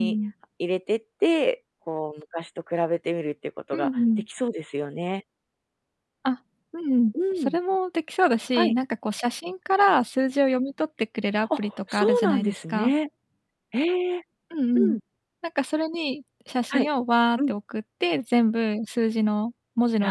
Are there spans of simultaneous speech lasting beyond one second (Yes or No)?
Yes